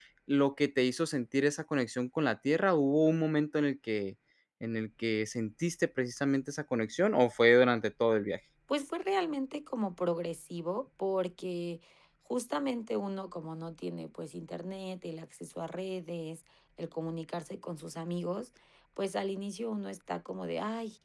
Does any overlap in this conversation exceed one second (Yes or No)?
No